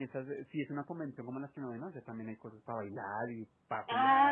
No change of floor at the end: No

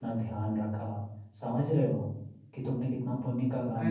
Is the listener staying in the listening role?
No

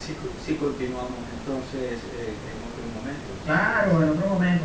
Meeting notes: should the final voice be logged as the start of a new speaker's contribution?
Yes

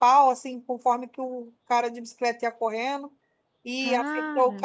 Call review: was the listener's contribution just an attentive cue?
Yes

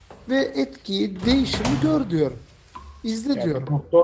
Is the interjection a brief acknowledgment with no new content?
No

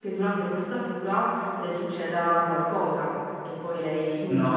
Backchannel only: No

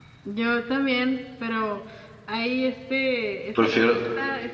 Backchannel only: Yes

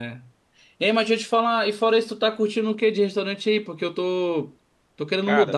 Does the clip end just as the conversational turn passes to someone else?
No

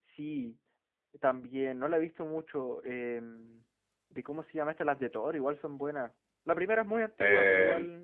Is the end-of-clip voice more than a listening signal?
Yes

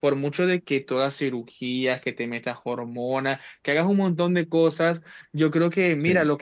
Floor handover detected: No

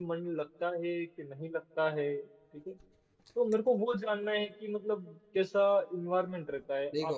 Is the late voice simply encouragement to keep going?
Yes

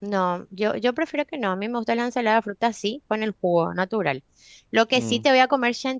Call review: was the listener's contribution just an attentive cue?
Yes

